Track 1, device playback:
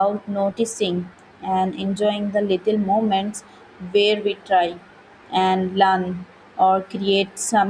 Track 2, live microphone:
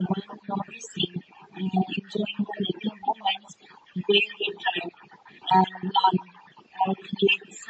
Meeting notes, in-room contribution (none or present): none